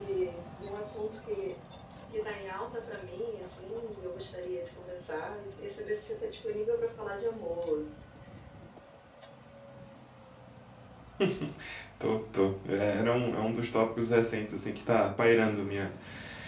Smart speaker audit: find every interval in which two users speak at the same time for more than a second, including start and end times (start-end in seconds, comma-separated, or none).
none